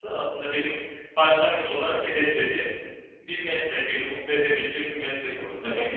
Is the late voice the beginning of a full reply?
Yes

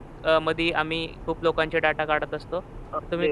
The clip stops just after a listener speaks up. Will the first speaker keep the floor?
No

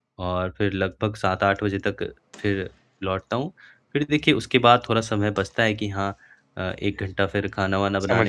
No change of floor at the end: Yes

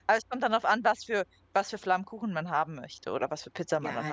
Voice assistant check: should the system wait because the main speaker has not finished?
No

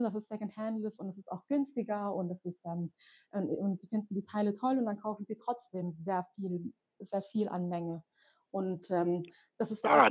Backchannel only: No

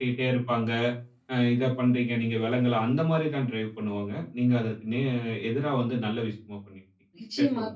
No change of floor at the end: No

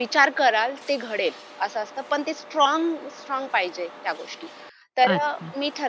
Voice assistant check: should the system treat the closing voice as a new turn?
No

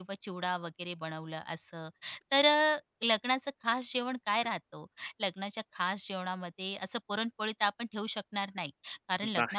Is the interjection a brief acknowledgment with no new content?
Yes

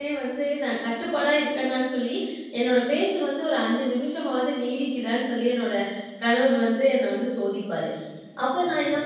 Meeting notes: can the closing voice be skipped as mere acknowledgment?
Yes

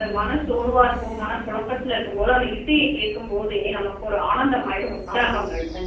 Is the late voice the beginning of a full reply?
Yes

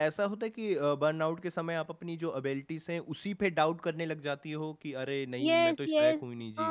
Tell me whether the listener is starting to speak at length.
Yes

